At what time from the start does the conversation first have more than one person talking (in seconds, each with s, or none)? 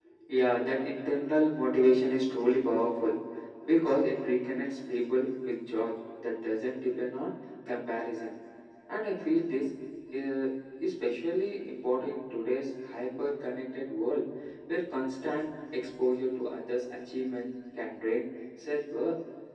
none